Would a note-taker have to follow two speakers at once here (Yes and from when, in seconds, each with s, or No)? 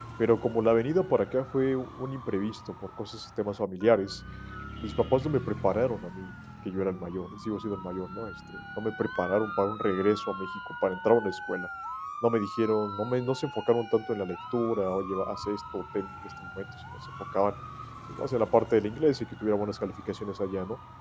No